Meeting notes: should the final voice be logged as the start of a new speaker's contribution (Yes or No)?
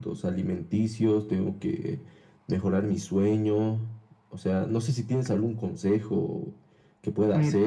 No